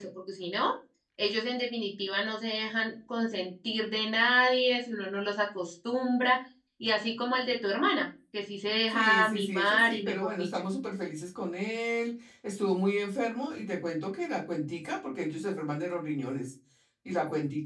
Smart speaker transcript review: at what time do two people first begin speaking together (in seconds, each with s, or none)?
8.9 s